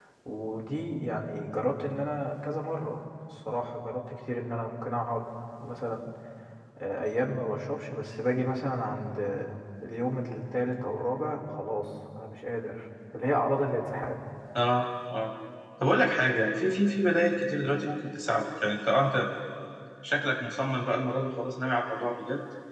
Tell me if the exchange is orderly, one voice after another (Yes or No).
Yes